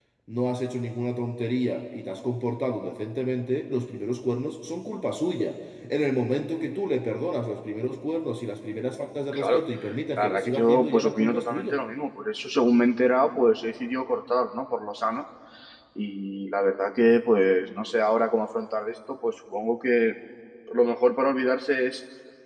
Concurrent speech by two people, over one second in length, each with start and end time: 10.2-11.8

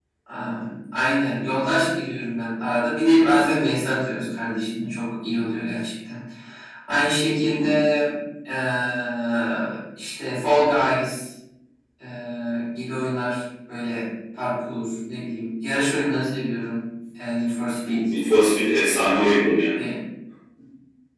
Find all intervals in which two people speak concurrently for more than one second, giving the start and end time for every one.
none

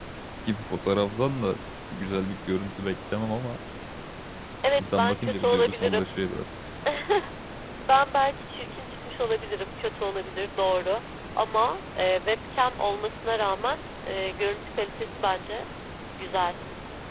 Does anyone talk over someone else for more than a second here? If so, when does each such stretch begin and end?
4.8-6.1

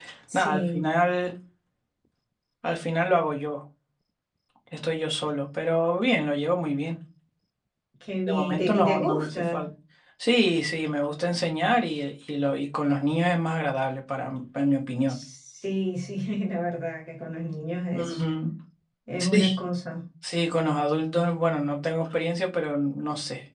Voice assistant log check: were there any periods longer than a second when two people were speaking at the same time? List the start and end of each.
8.3-9.6

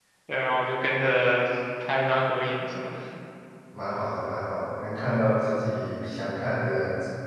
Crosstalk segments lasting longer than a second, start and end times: none

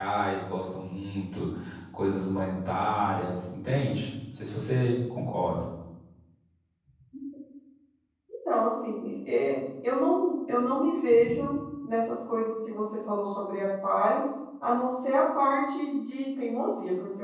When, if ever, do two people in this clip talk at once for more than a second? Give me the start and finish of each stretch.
none

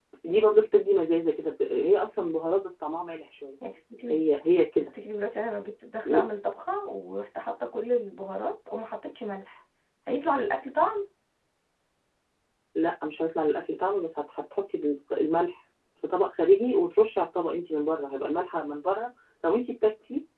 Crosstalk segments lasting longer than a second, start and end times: none

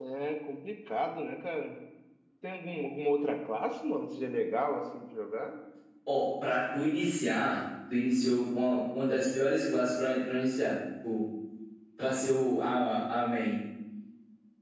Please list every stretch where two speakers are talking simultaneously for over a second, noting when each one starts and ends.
none

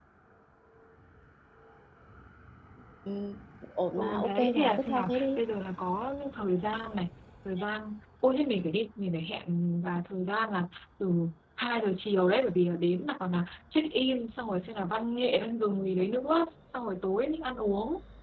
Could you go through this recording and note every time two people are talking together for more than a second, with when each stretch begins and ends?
3.9-5.4

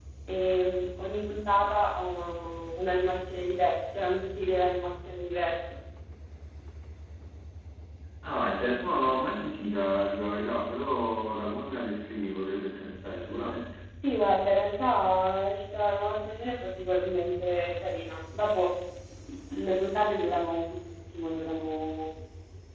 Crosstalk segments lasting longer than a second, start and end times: none

